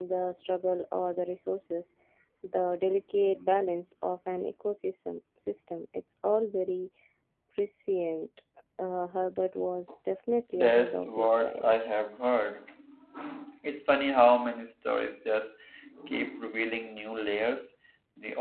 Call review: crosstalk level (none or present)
present